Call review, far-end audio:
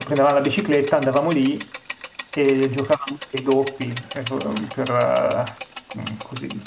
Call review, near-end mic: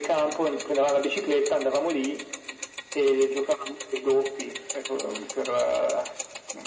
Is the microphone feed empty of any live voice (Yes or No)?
Yes